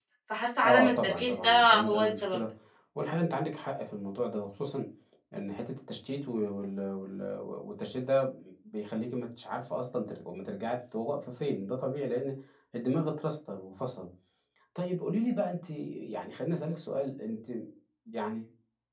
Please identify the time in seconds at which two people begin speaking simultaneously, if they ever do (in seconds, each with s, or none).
0.6 s